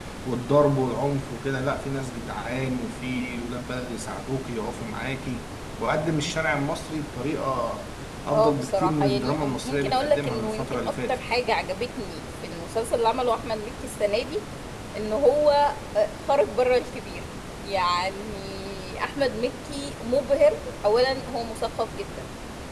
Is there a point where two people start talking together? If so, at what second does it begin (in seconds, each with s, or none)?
8.3 s